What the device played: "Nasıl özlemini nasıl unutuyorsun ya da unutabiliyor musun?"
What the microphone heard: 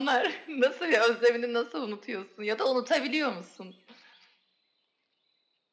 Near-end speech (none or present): none